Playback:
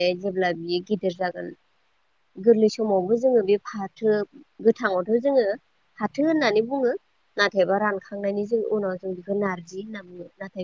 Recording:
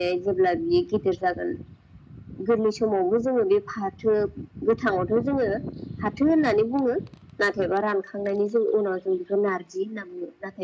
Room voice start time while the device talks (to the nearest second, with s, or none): none